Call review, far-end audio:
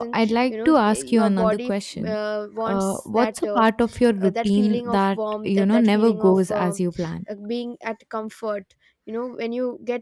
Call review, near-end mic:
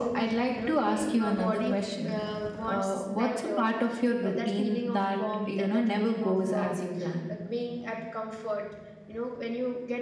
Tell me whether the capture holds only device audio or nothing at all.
Yes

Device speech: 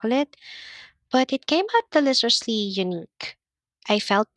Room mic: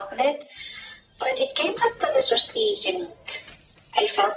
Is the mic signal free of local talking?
Yes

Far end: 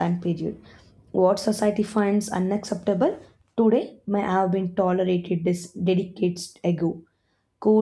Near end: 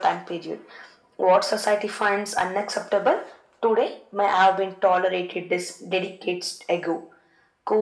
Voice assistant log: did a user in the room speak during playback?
No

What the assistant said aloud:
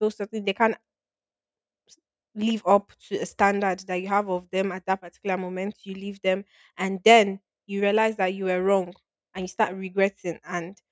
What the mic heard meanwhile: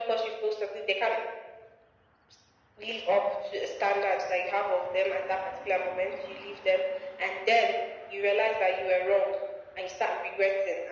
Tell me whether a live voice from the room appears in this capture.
No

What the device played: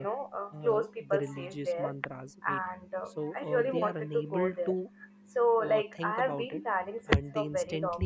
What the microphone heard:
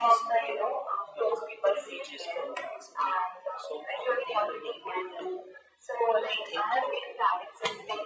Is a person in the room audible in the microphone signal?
No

